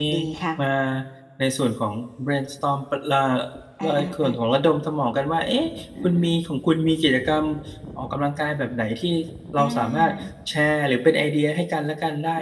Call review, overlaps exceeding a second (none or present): none